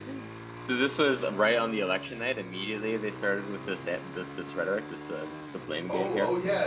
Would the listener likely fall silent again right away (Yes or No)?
No